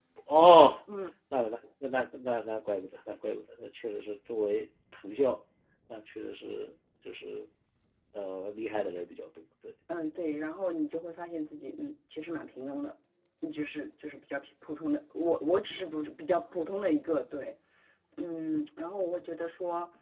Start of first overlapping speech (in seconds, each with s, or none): none